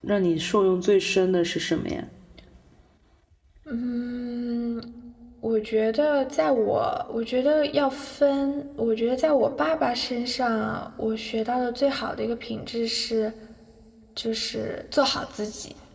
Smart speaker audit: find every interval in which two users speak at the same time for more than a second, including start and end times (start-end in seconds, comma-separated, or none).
none